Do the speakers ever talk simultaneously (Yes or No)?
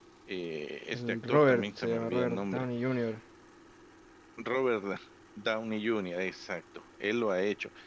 Yes